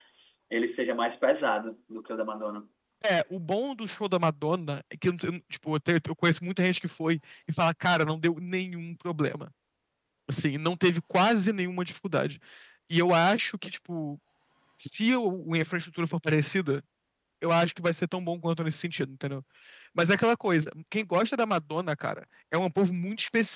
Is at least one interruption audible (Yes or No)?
No